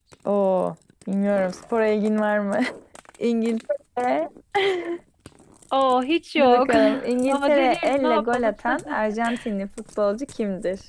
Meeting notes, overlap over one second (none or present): present